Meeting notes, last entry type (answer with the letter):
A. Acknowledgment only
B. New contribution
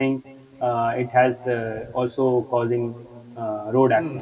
B